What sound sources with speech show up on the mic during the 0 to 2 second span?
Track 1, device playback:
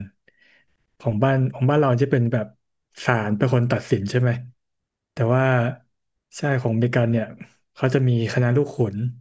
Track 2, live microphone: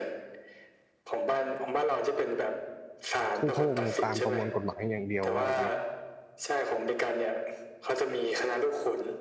echo only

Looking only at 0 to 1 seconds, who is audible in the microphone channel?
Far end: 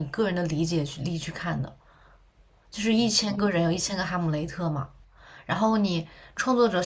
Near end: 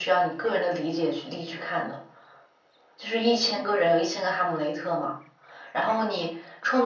echo only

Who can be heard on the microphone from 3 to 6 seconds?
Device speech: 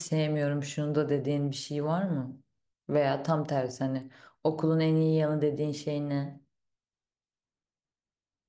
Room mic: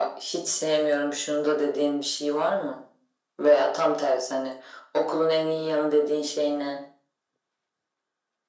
echo only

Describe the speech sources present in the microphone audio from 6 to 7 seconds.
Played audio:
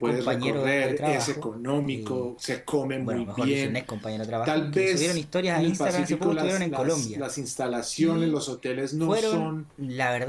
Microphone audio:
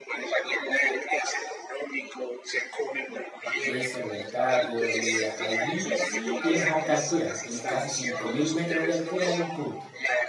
both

